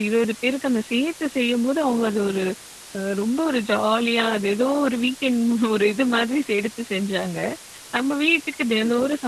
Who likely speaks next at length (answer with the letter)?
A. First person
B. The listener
A